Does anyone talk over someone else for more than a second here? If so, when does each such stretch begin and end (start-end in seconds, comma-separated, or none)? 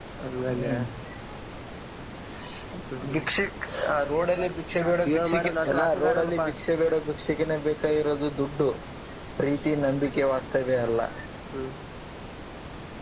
5.1-6.5